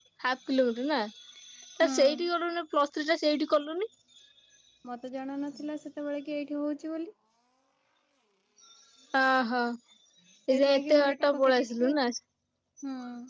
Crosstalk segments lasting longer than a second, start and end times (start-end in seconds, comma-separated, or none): 10.6-12.0